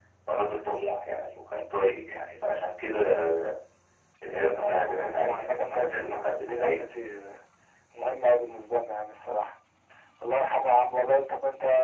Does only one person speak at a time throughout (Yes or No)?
No